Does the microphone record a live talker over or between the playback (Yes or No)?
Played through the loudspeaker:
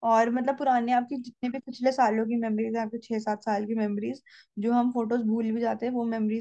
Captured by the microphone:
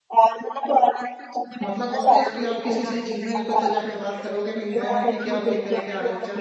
Yes